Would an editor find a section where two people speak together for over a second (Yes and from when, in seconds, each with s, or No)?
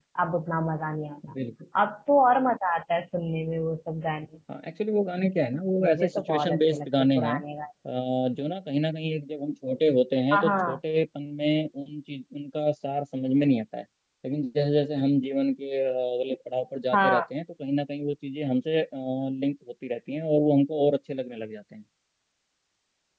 Yes, from 5.8 s